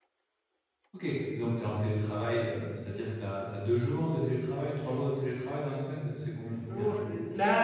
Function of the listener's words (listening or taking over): taking over